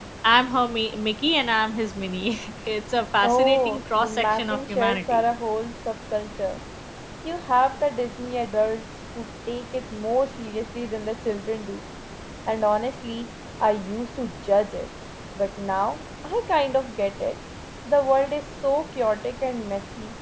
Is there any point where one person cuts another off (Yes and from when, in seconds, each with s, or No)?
Yes, from 3.2 s